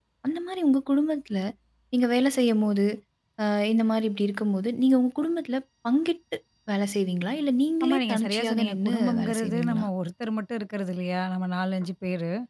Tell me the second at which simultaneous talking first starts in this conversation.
7.8 s

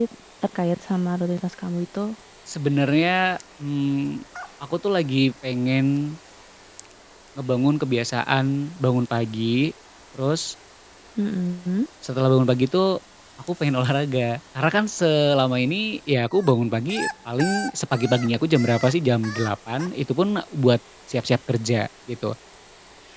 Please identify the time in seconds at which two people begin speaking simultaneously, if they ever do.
none

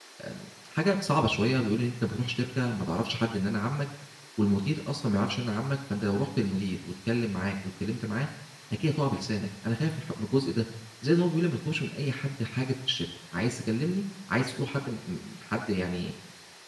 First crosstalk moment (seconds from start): none

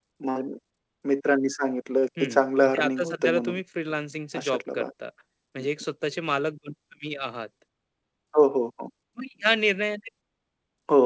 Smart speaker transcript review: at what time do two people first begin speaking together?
2.2 s

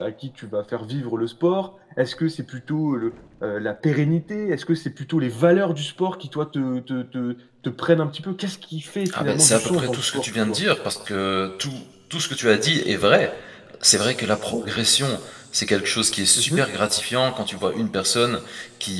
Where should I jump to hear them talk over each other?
9.1 s

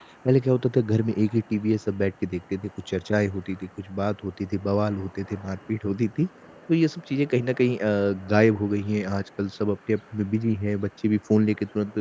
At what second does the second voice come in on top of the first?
none

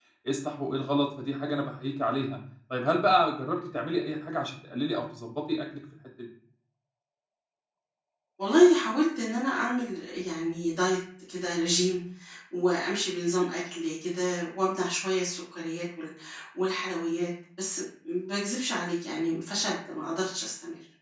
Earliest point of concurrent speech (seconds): none

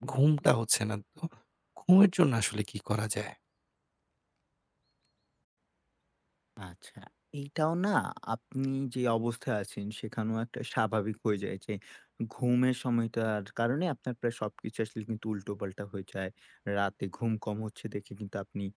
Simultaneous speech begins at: none

